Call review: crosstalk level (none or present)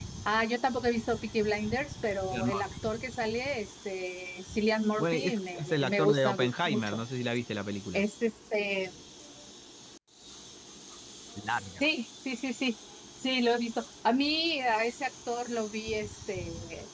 present